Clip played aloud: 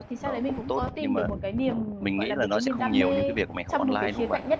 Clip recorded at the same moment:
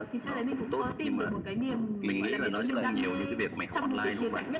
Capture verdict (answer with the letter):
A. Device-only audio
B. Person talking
B